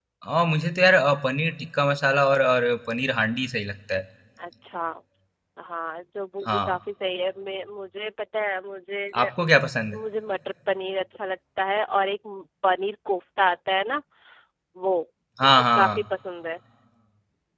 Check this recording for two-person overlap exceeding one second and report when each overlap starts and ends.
none

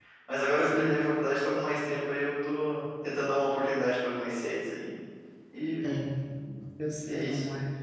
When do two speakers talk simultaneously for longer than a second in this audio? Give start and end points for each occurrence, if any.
none

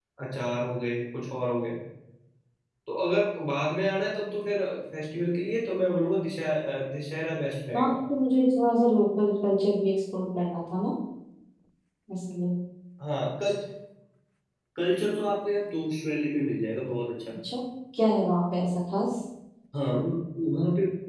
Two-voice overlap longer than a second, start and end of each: none

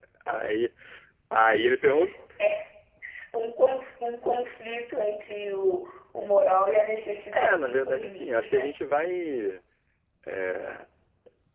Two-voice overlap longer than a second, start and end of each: 7.3-8.7

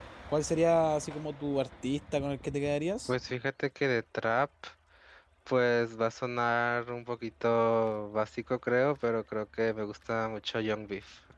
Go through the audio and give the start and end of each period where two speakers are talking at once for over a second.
none

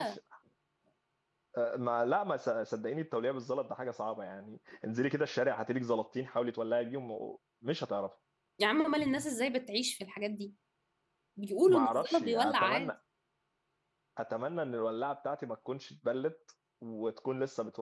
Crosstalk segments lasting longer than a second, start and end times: 11.7-12.9

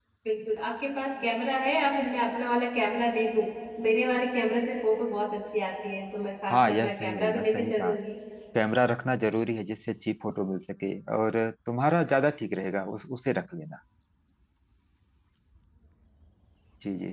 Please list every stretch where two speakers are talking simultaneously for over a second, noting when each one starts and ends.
6.5-7.9

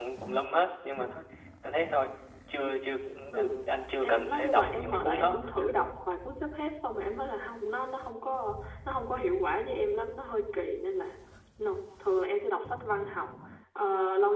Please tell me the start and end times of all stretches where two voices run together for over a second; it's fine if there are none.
4.0-5.4

